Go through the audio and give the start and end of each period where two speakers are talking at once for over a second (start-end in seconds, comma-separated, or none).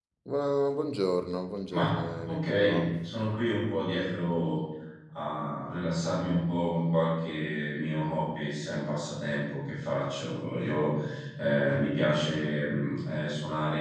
1.7-2.9